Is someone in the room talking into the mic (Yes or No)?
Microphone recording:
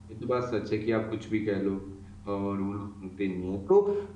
Yes